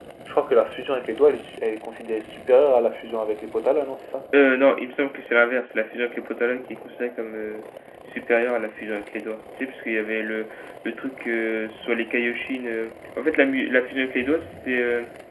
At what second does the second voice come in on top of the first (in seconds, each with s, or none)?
none